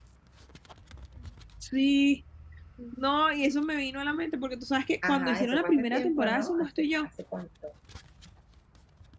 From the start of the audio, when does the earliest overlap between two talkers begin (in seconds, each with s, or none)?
5.0 s